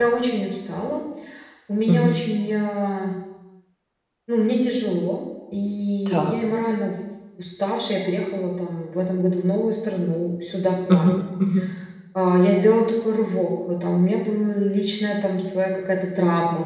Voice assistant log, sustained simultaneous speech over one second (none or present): none